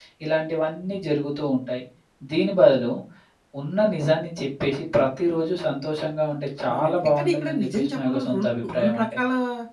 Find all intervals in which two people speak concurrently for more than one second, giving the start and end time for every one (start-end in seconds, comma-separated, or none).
6.7-9.2